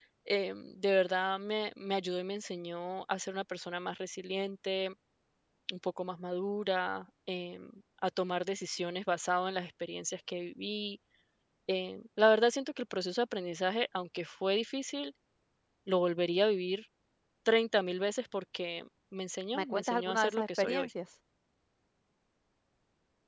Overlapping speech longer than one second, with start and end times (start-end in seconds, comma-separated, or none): 19.5-20.9